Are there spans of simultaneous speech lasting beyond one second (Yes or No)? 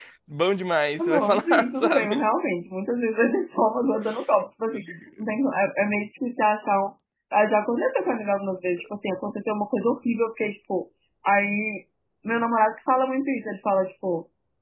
Yes